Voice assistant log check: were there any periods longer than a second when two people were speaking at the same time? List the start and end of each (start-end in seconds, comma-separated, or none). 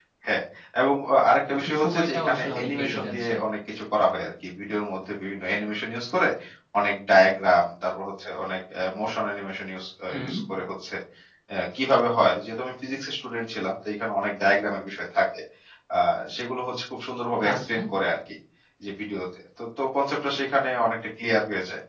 1.5-3.3